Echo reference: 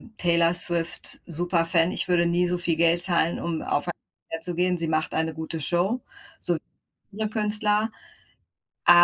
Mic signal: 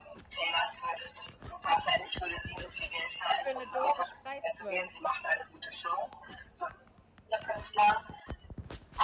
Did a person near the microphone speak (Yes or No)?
Yes